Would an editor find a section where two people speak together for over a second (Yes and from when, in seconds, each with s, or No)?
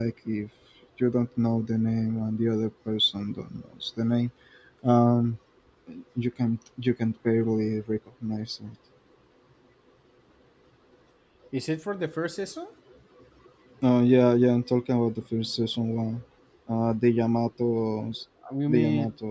No